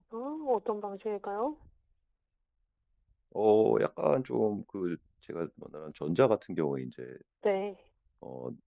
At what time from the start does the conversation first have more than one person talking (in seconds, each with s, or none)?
none